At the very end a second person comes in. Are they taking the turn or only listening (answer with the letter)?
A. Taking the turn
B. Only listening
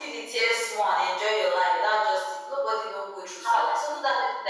B